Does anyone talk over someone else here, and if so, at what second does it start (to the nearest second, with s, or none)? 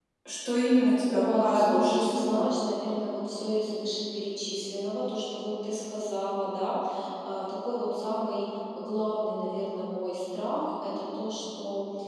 1 s